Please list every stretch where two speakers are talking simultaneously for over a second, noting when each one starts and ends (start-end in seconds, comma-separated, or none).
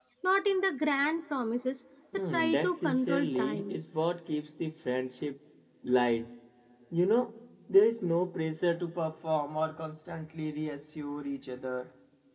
2.3-3.8